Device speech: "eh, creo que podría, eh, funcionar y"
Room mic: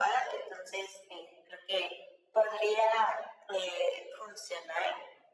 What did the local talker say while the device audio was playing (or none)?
none